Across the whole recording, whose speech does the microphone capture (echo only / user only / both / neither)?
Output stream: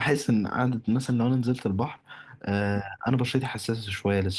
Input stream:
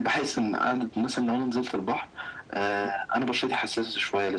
echo only